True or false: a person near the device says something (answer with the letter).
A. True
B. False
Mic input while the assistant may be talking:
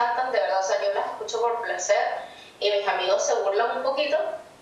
B